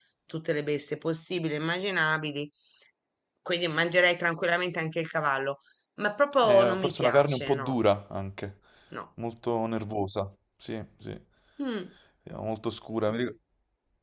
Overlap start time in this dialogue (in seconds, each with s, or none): 6.4 s